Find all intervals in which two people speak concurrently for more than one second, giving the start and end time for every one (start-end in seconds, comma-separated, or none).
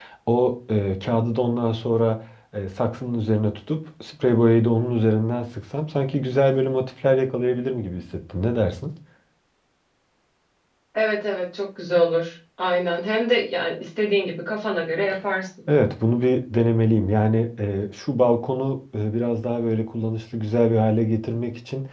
none